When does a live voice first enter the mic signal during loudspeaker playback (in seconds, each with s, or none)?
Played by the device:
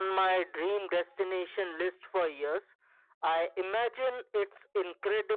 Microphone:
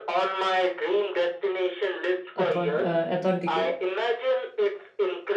2.4 s